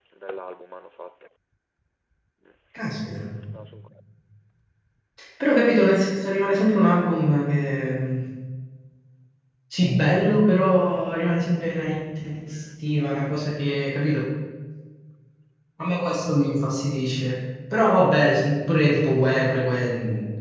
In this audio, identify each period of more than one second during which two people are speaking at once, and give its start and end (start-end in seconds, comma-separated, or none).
none